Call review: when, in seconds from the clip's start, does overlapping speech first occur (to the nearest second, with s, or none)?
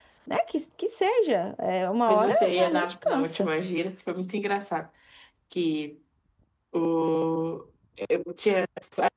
2 s